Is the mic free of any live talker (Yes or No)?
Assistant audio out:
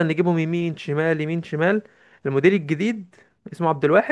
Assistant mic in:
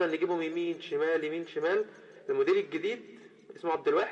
Yes